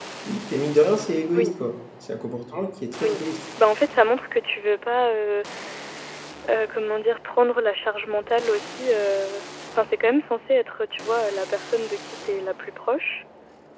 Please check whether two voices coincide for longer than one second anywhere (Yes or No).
No